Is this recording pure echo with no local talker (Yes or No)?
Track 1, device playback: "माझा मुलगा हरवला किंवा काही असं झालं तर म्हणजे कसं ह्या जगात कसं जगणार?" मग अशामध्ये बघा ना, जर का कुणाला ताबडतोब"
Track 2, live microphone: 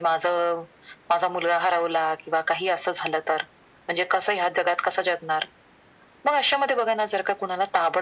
Yes